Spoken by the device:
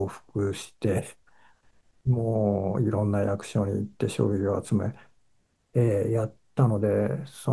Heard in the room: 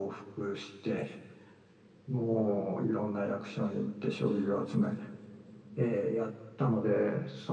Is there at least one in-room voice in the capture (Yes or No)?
No